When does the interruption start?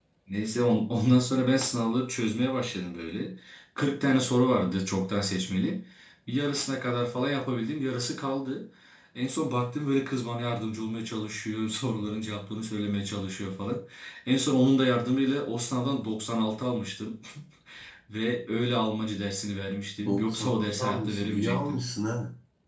20.1 s

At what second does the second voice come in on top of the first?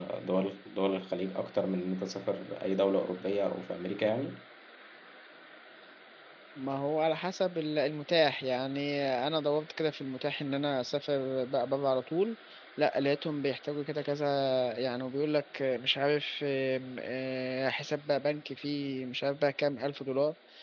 none

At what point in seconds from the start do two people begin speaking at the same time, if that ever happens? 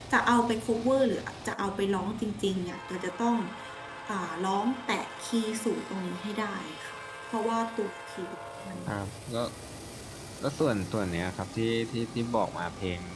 none

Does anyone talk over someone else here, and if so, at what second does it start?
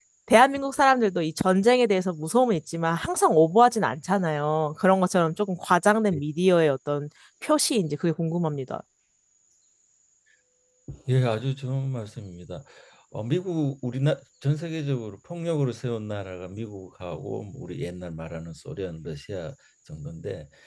none

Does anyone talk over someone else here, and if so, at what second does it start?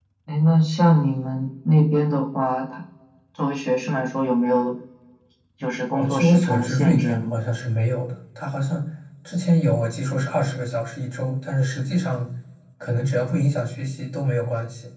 6.0 s

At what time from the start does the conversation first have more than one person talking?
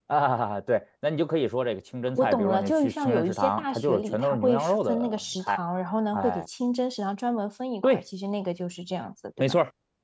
2.2 s

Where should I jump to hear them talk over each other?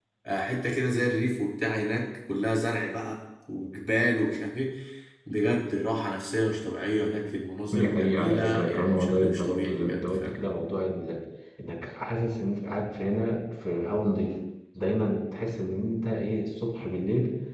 7.7 s

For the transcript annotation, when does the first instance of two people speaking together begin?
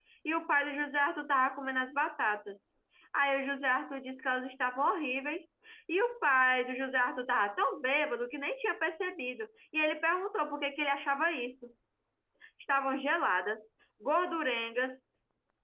none

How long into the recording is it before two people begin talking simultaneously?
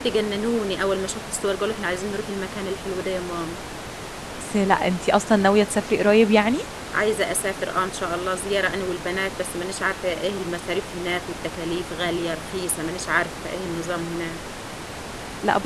none

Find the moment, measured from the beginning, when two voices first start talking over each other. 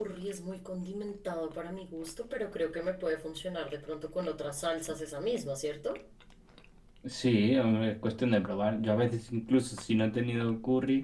none

